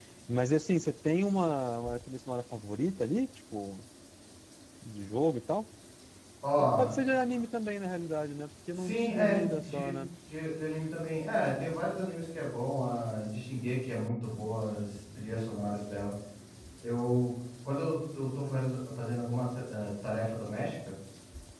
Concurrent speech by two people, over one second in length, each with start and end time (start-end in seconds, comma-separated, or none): 8.7-10.0